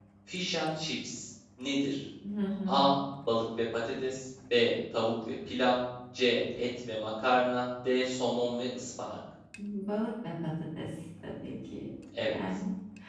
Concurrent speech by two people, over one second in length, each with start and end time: none

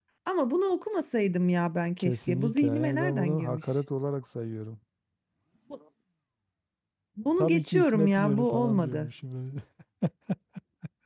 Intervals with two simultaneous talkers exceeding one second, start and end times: 2.0-3.6, 7.4-9.1

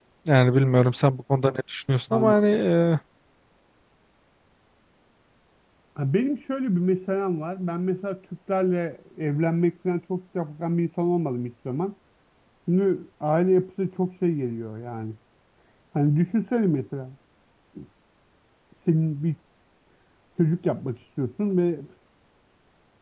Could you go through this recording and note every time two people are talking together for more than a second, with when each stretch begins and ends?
none

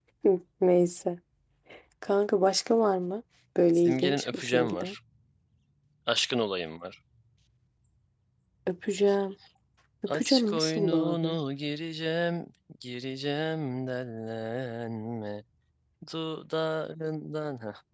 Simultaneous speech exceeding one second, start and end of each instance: 3.8-5.0, 10.1-11.3

